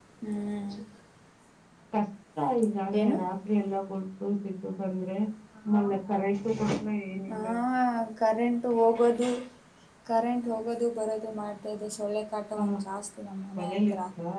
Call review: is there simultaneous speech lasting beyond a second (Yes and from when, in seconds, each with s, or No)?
No